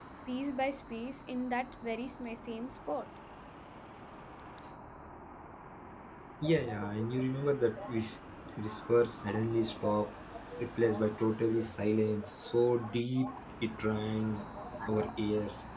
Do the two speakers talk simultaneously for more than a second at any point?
No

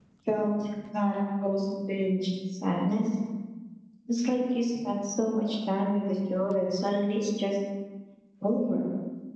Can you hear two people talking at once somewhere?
No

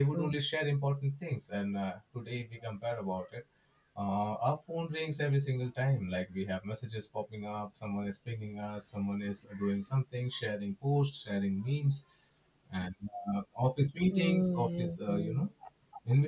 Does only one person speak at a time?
No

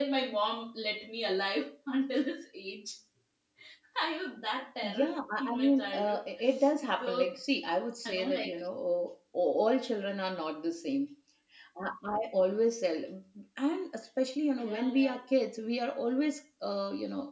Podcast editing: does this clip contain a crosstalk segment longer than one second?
Yes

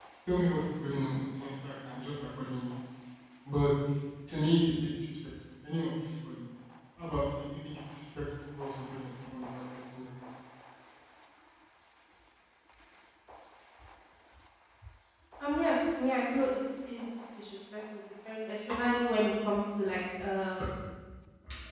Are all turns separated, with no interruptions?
Yes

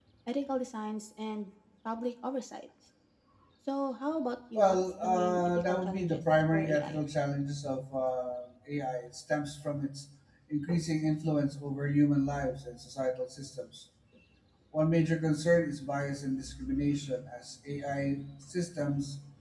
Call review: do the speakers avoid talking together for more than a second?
No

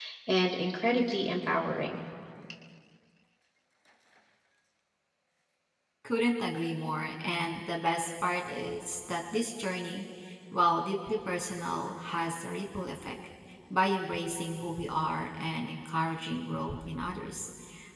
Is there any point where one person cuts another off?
No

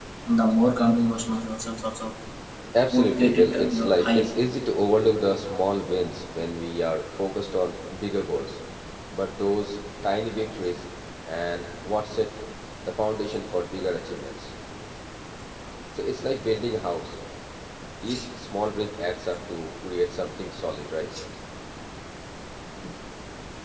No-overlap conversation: No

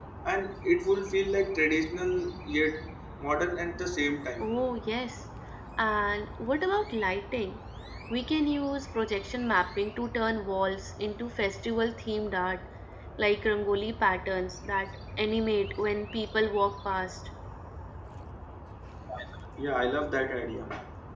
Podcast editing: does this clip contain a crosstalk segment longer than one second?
No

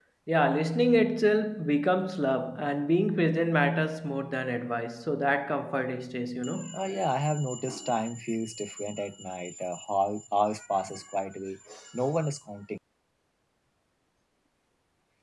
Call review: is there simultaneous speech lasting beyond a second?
No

